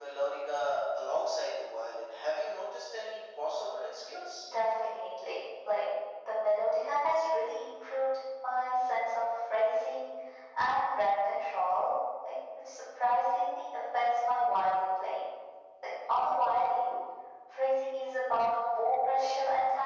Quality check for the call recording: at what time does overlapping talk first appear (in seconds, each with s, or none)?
none